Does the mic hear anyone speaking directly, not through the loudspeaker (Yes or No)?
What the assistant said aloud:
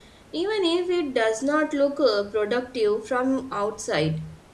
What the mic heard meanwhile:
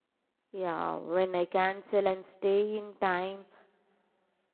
Yes